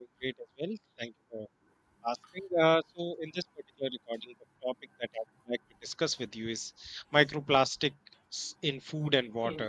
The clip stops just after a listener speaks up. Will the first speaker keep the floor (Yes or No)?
Yes